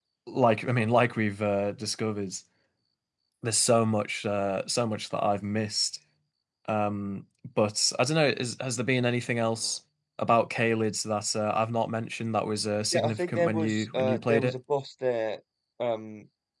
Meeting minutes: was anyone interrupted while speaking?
Yes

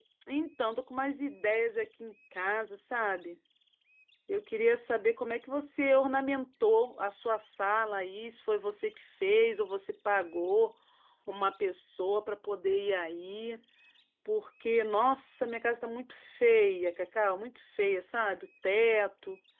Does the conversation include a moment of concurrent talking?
No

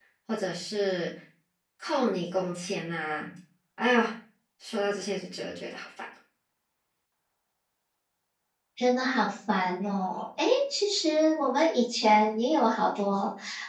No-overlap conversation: Yes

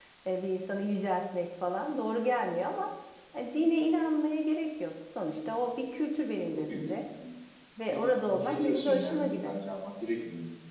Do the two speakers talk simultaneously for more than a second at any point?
Yes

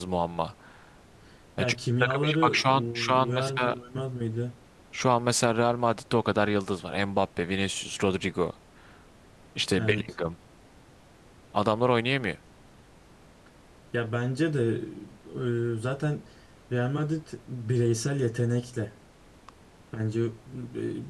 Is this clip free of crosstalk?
No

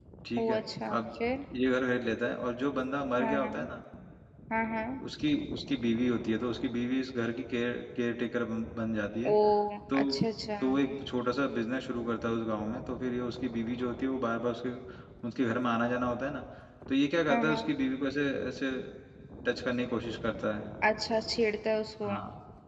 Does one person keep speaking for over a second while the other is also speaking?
No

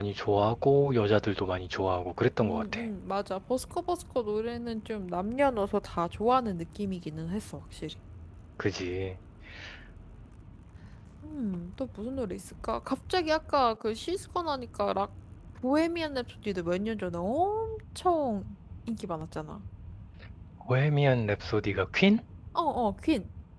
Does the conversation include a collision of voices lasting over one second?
No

